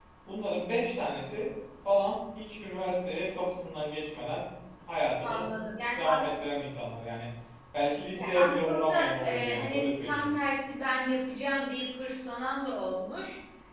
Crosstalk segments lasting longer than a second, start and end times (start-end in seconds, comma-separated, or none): 8.2-10.3